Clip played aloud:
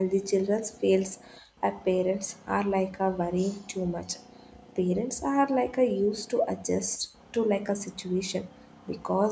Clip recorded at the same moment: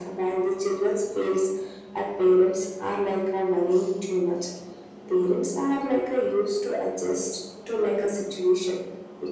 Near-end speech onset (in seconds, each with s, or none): none